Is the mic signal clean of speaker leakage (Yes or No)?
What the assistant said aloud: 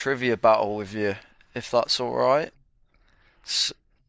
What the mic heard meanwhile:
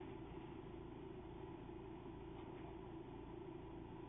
Yes